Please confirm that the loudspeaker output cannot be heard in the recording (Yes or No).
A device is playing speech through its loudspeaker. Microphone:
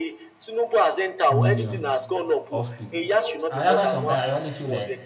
No